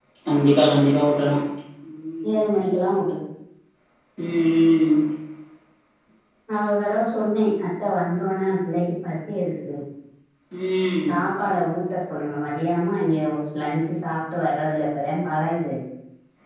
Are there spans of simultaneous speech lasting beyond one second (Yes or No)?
No